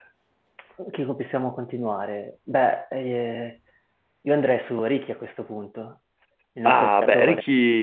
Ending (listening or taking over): taking over